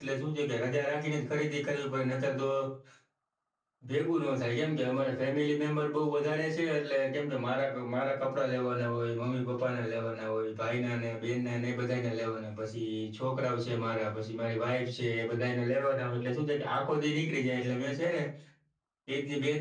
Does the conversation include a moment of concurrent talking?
No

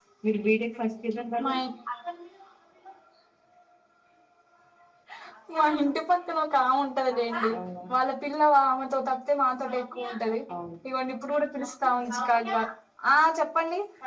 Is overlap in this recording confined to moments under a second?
Yes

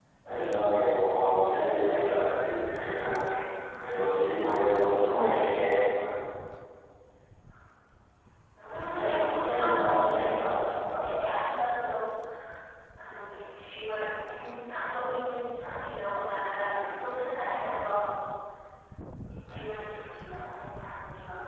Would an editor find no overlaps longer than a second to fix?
No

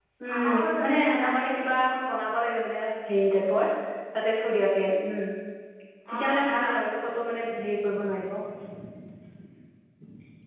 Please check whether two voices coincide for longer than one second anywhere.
Yes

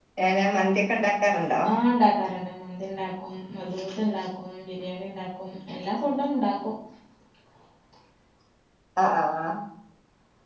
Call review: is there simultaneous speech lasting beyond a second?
No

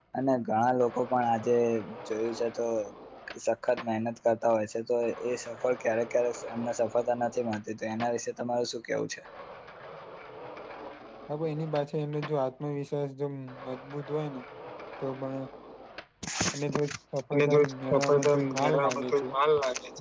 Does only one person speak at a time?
No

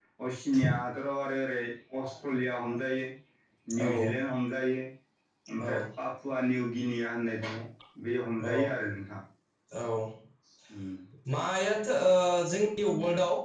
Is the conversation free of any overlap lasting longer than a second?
Yes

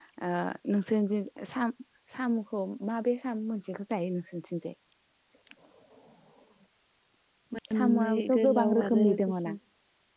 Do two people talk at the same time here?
Yes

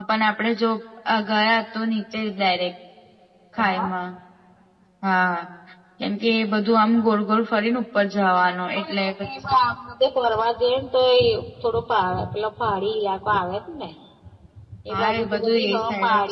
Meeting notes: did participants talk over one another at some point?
Yes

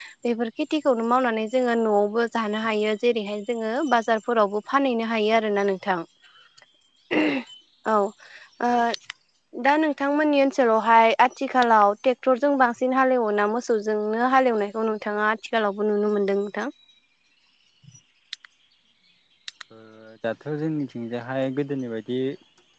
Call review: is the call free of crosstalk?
Yes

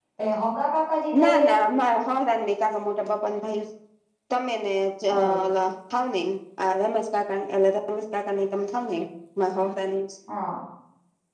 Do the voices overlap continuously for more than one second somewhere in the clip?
No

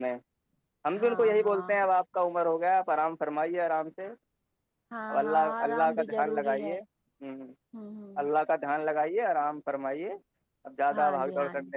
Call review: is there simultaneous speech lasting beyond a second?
Yes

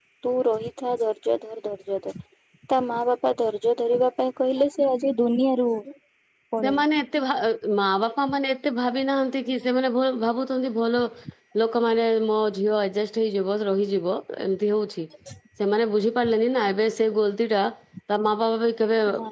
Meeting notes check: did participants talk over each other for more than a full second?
No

